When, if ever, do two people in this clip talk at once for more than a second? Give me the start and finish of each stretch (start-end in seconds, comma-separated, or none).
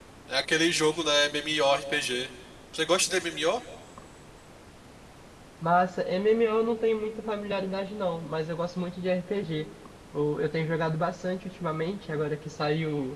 none